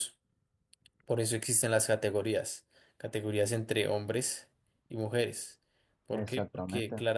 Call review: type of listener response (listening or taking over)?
listening